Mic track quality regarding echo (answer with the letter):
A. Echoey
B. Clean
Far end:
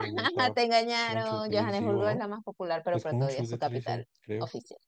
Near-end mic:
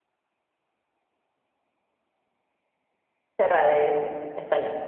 B